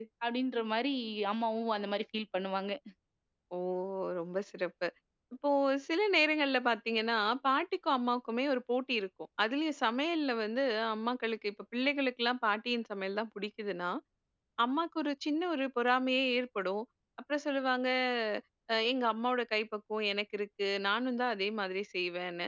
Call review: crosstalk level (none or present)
none